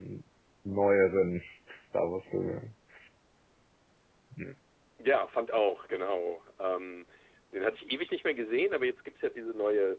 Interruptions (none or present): none